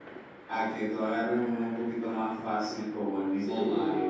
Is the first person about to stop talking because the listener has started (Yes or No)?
Yes